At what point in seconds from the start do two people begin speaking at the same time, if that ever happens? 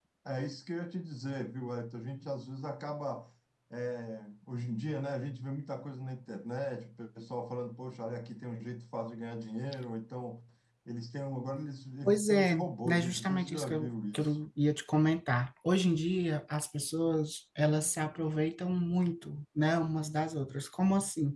12.0 s

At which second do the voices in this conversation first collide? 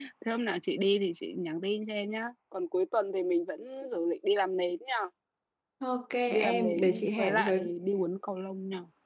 6.3 s

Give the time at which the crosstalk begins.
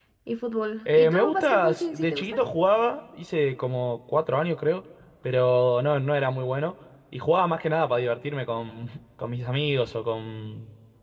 0.9 s

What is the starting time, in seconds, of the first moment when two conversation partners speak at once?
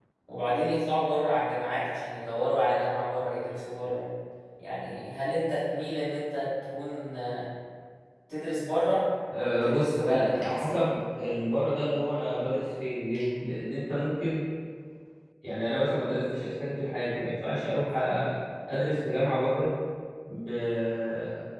9.3 s

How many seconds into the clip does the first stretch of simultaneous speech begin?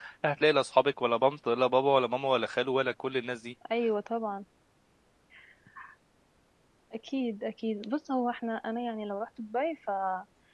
none

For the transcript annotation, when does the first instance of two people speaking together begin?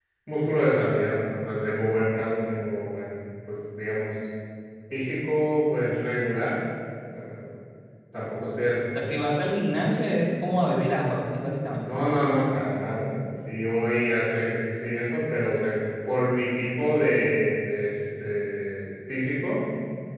none

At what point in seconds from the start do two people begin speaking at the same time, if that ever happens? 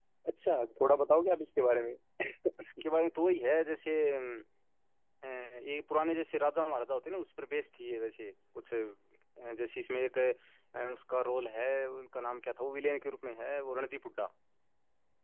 none

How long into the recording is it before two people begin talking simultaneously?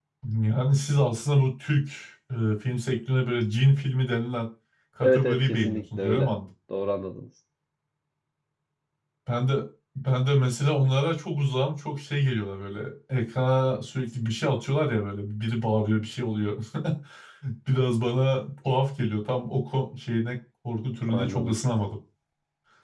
5.0 s

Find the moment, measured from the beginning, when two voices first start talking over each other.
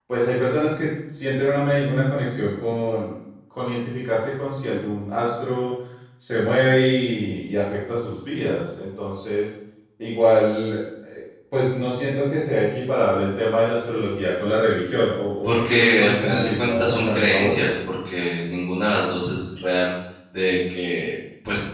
15.4 s

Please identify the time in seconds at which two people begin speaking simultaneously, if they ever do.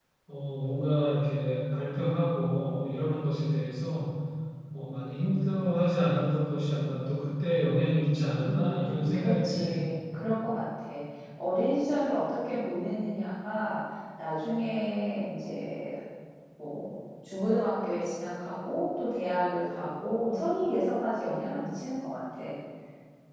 8.4 s

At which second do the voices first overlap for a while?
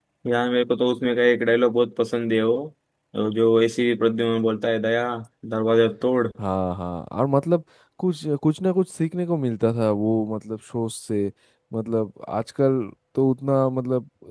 none

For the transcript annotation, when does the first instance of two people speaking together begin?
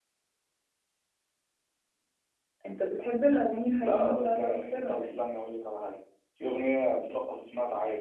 3.8 s

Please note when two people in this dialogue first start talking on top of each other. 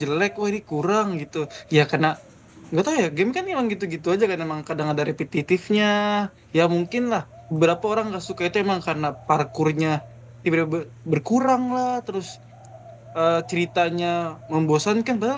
none

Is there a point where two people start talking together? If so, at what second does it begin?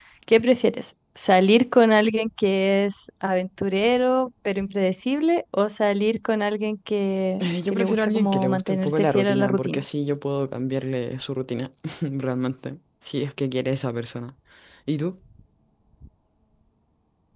7.4 s

